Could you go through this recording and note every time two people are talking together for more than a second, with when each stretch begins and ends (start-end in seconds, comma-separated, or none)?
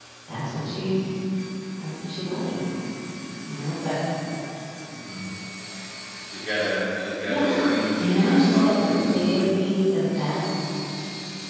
8.0-9.5